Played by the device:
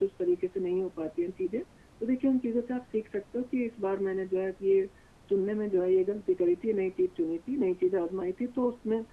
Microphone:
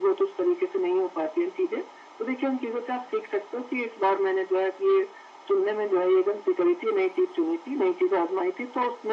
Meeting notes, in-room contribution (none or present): none